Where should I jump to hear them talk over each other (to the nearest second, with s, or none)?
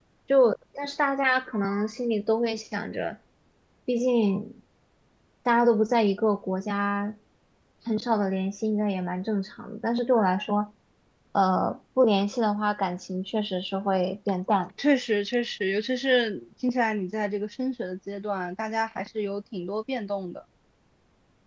none